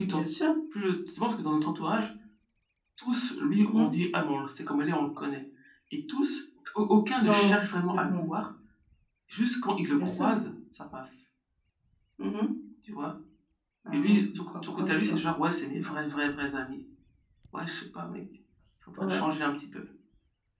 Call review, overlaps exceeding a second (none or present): present